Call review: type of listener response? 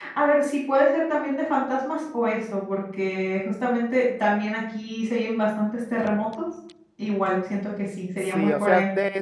taking over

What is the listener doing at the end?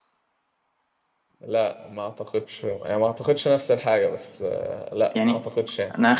taking over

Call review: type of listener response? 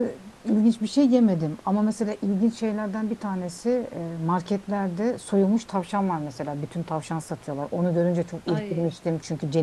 listening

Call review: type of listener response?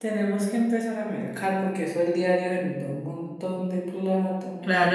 taking over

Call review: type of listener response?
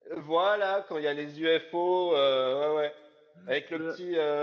listening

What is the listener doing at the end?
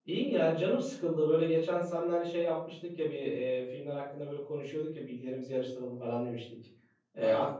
listening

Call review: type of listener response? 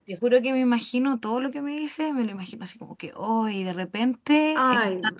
listening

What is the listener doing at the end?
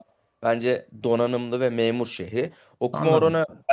listening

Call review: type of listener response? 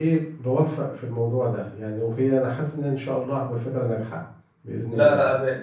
taking over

